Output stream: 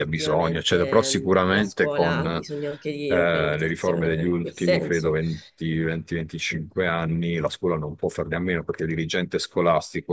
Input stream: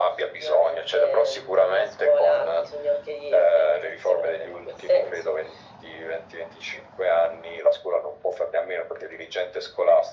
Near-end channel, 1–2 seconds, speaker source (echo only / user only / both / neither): echo only